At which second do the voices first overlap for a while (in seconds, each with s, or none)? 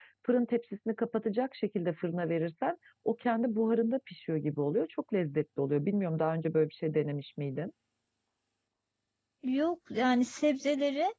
none